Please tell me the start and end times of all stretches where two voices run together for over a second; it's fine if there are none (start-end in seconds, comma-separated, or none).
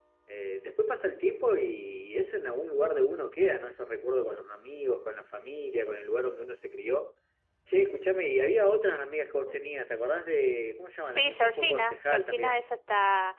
11.1-12.7